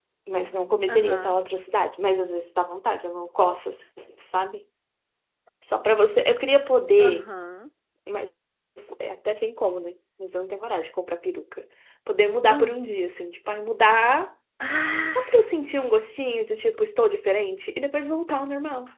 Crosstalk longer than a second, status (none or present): none